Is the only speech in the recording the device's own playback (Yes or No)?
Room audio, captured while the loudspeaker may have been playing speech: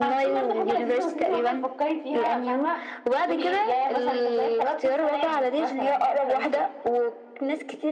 Yes